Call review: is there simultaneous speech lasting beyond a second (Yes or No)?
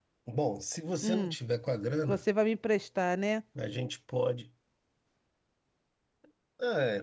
No